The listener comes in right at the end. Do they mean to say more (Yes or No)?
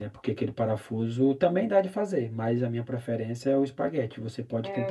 Yes